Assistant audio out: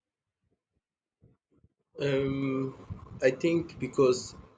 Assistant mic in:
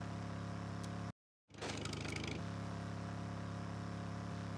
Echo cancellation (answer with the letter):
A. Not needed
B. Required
A